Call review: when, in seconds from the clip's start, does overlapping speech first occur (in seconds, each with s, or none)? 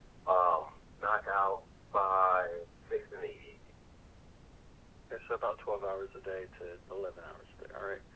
none